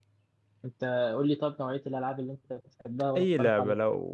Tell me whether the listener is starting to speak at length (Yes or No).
Yes